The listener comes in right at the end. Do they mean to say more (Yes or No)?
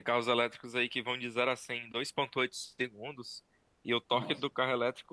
No